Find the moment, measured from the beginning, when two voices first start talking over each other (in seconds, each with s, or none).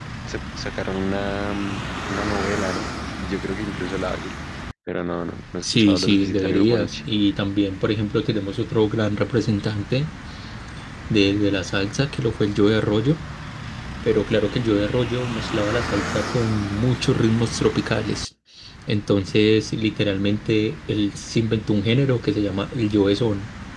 5.6 s